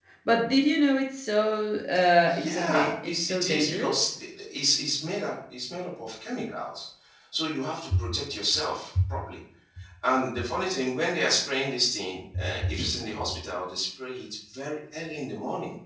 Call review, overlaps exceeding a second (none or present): present